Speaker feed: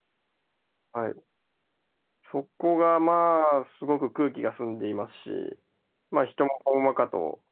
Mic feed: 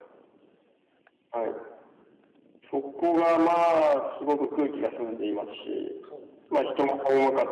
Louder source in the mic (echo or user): echo